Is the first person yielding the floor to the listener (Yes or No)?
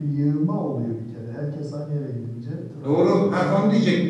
Yes